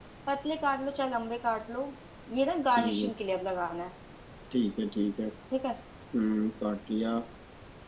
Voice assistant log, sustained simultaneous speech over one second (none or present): none